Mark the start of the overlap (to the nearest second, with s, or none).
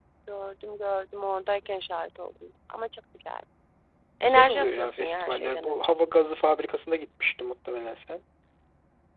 4 s